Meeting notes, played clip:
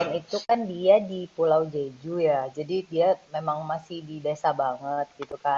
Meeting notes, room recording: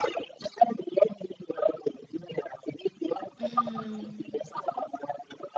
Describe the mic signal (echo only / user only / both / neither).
both